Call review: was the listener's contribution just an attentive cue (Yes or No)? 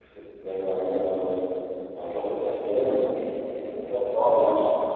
Yes